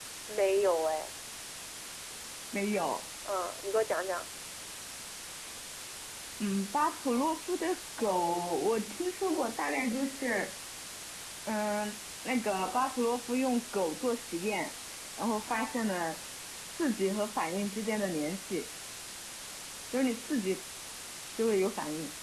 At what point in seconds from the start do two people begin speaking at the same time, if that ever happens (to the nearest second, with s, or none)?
none